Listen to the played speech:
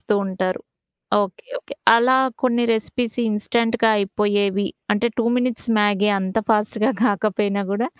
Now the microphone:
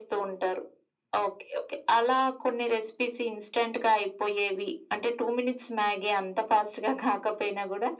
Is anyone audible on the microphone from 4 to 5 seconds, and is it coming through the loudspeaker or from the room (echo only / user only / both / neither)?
echo only